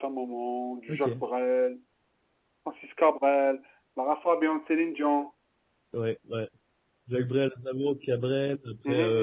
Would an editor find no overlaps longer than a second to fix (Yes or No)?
Yes